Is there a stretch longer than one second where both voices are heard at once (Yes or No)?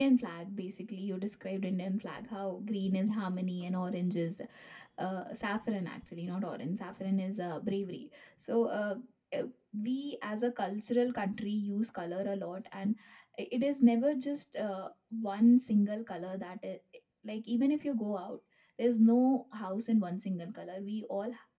No